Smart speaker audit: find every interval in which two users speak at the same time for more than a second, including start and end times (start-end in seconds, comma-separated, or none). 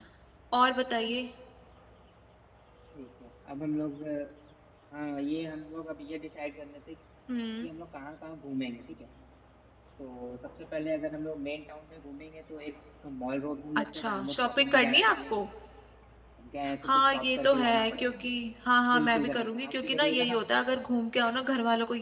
13.8-15.4, 16.8-18.3, 18.9-20.4